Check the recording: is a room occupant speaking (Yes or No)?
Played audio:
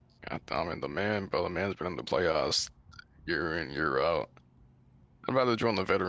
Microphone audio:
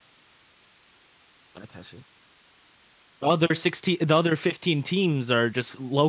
Yes